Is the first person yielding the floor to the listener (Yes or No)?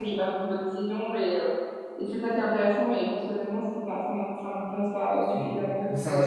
Yes